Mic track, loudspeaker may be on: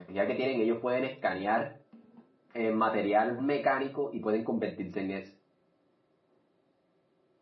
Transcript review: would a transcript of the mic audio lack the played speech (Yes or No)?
Yes